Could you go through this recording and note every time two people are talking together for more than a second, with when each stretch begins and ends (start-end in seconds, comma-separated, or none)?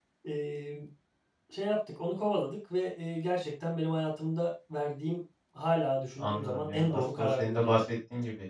6.2-7.8